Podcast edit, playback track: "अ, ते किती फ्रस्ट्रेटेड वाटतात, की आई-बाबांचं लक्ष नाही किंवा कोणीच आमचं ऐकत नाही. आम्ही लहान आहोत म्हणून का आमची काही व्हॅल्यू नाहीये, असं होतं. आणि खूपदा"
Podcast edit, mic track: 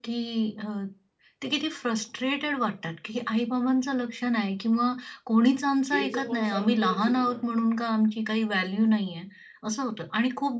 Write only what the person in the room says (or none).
केचं पण साउंड कच आहे की म्हटलं.